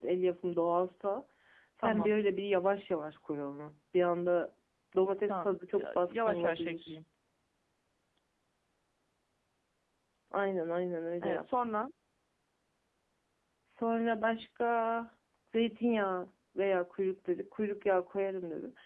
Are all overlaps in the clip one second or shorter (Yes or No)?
No